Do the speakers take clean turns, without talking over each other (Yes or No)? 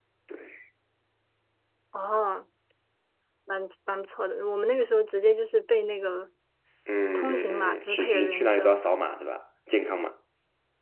No